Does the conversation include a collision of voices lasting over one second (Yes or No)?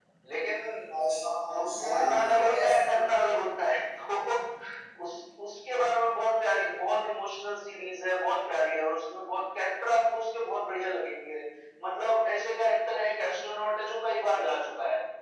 Yes